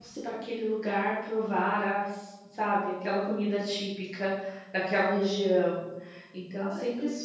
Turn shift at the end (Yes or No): No